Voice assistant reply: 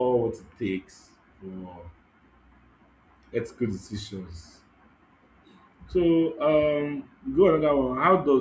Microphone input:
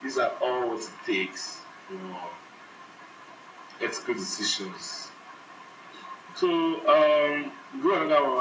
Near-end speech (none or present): none